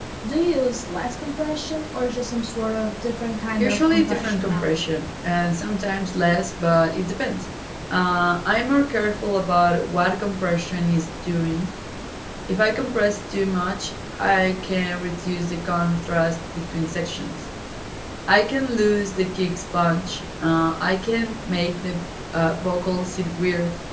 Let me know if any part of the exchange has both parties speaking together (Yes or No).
Yes